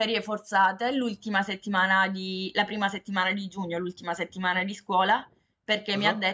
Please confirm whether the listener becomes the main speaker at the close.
No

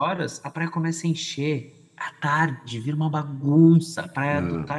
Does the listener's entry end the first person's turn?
No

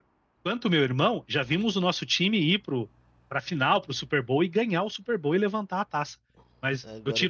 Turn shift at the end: No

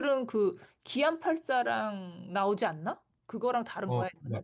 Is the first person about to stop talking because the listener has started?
Yes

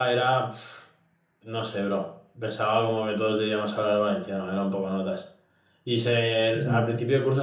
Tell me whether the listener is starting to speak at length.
No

